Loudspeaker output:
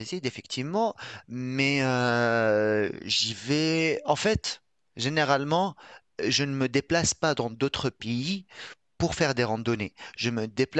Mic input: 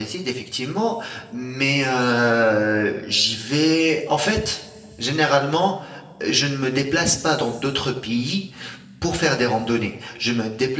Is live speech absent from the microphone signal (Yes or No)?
Yes